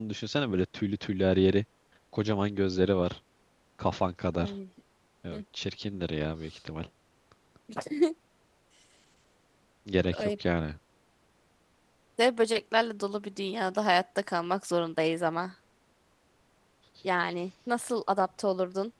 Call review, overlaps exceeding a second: none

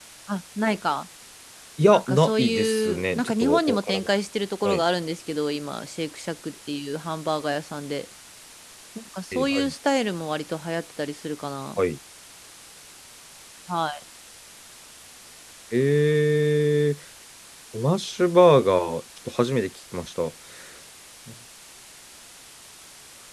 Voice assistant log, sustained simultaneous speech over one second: present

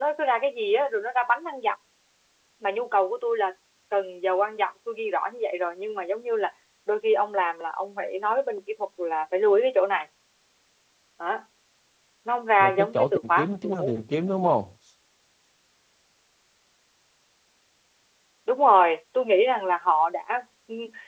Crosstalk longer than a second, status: present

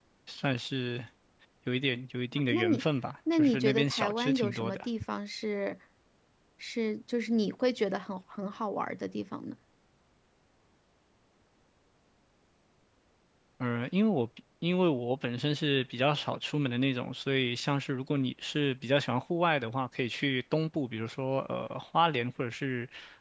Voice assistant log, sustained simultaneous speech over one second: present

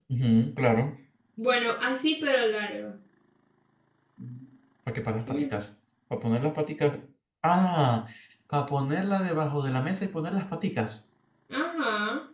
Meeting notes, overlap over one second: none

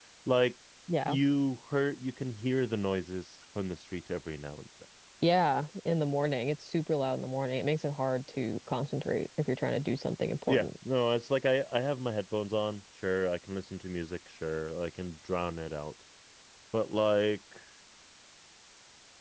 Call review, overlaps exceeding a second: none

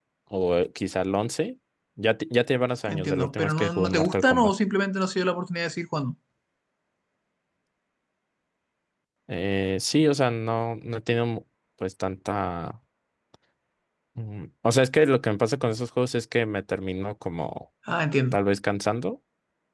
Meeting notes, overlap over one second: present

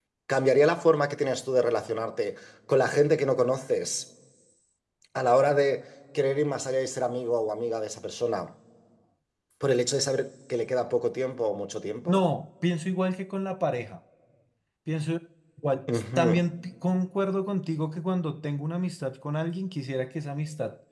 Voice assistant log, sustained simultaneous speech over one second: none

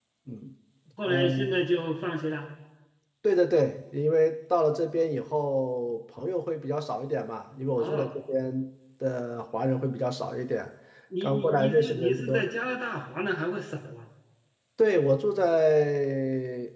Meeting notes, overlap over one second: present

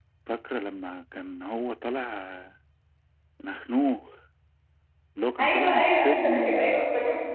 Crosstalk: present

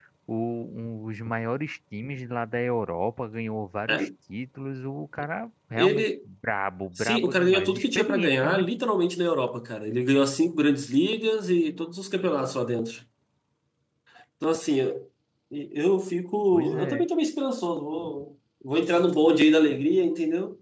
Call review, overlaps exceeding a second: present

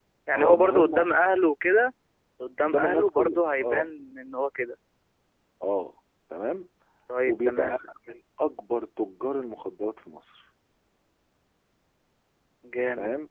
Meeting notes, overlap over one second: present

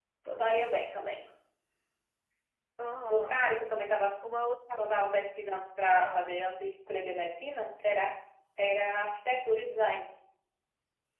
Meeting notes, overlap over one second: none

